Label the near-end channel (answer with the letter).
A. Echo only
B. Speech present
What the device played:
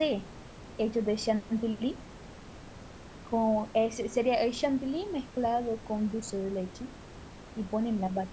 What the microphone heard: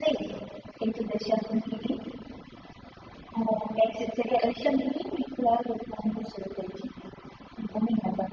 A